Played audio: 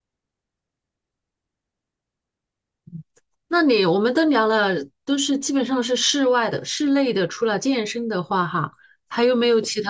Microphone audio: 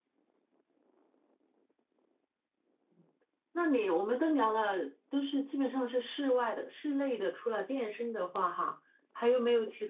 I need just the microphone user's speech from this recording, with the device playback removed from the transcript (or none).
none